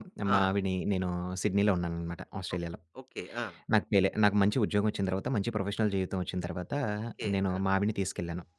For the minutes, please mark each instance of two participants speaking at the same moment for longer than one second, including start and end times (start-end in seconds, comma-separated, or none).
none